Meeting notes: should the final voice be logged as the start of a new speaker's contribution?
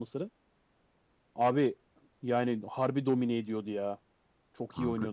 Yes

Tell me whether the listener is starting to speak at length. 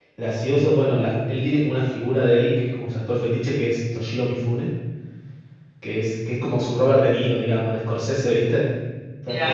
Yes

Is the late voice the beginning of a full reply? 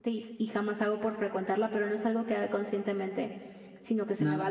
No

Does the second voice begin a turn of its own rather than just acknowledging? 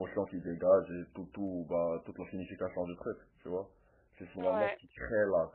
No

